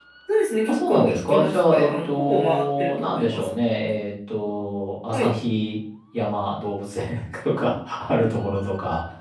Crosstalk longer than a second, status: present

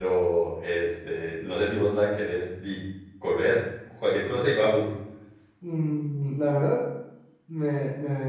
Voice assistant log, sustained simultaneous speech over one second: none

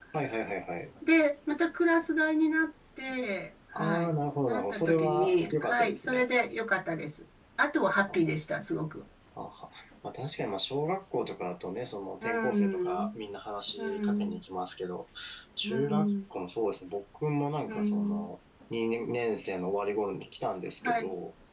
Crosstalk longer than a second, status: present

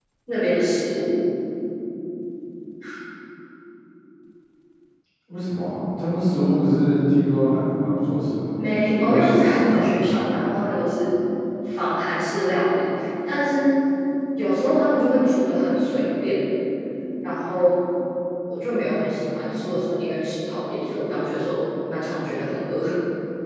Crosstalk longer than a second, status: present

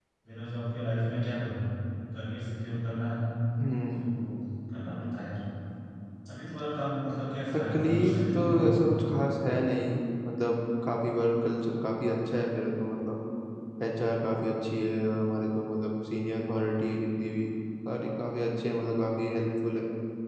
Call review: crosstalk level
present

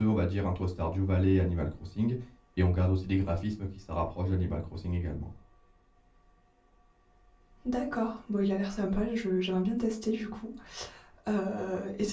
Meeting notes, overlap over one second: none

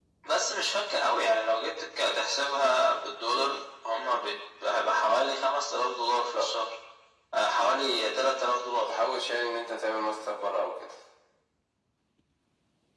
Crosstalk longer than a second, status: none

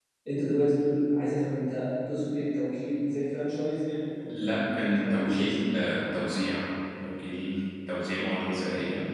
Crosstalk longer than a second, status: present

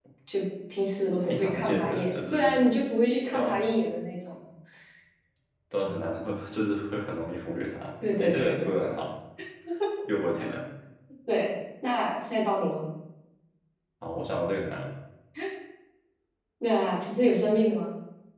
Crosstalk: present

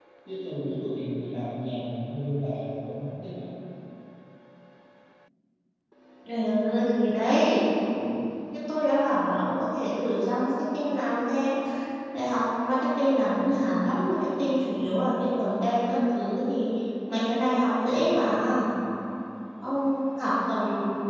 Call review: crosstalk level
none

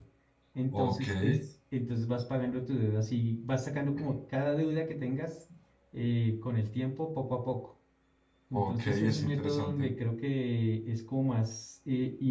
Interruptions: present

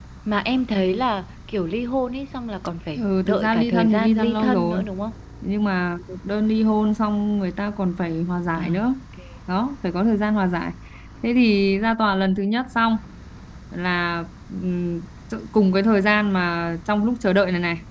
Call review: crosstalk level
present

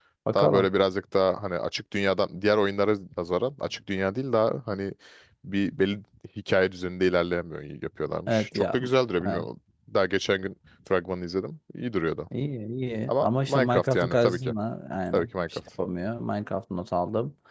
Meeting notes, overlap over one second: present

